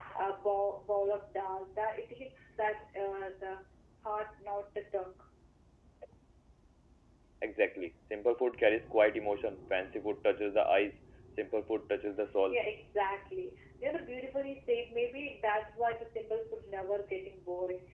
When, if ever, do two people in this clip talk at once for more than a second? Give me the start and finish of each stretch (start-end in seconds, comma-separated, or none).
none